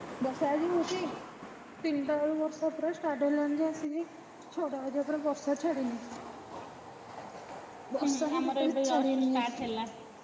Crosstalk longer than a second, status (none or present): present